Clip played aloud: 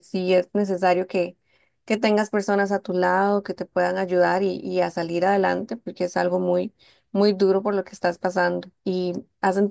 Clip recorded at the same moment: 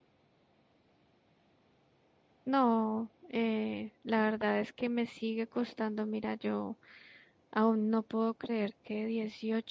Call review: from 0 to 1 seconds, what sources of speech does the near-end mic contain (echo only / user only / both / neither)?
neither